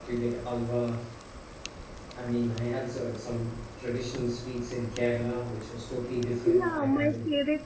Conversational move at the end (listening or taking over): taking over